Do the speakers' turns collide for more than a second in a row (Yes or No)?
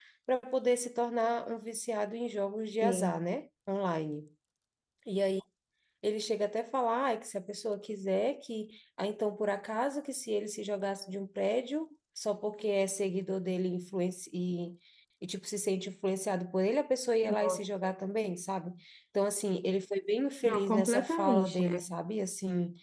Yes